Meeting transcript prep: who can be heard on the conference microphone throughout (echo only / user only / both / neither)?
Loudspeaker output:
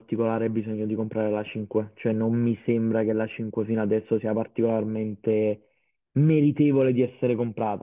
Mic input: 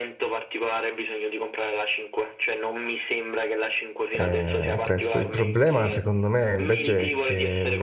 both